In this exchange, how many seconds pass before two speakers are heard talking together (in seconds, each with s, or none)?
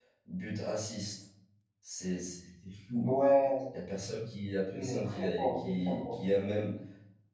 4.8 s